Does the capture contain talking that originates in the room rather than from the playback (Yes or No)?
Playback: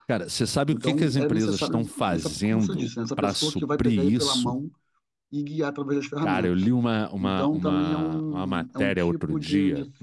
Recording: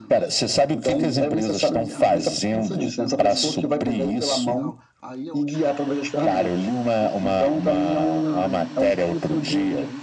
Yes